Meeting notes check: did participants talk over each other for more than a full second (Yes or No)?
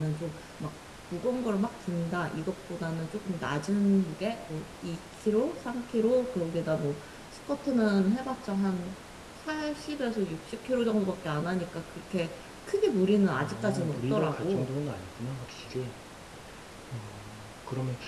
Yes